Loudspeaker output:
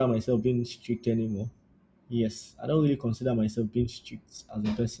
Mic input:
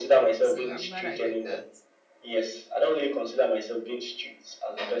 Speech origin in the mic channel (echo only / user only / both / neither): both